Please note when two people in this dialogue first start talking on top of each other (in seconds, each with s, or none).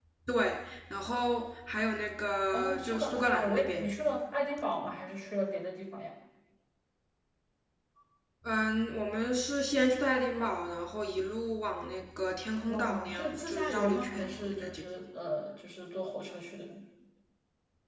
2.5 s